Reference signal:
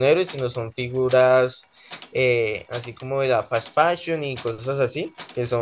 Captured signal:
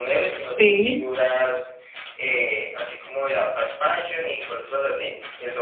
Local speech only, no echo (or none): Sí,